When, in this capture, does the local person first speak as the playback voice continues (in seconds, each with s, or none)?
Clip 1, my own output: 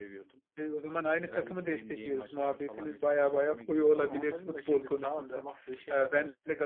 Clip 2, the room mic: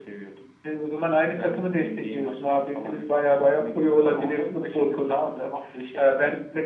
none